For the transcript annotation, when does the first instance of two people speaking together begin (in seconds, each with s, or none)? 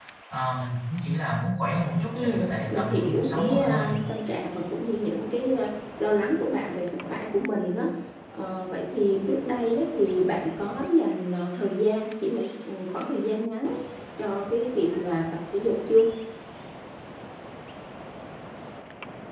2.1 s